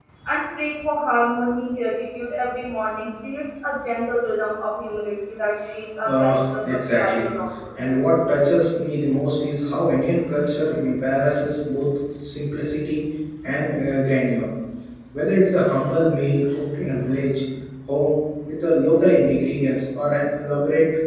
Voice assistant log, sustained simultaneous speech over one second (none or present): present